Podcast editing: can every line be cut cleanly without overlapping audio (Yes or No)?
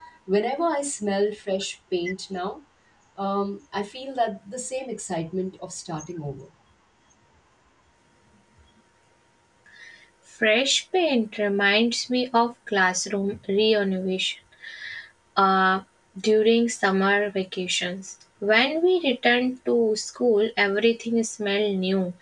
Yes